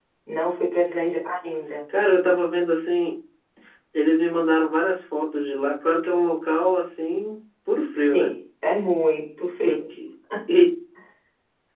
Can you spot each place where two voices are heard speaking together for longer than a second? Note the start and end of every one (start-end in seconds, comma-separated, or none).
none